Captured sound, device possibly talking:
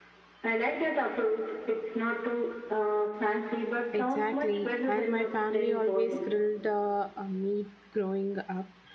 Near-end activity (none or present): present